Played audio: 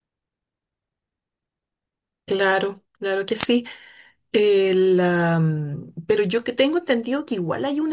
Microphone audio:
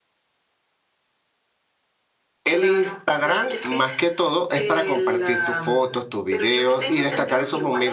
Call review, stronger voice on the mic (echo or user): user